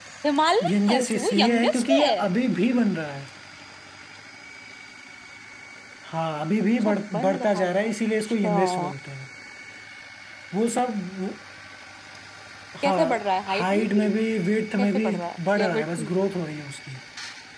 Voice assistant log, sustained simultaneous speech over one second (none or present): present